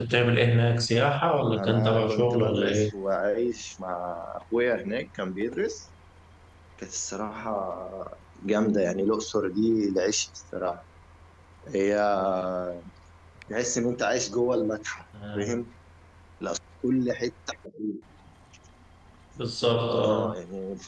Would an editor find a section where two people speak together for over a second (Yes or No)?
Yes